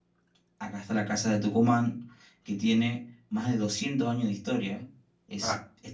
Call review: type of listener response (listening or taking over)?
listening